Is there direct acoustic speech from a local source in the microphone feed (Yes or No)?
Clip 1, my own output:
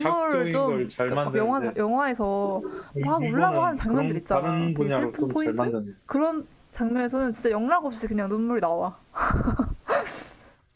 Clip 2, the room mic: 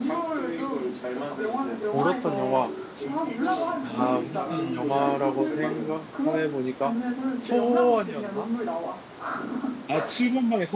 Yes